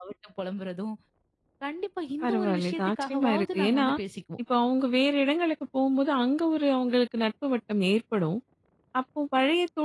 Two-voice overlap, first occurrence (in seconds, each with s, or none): 2.2 s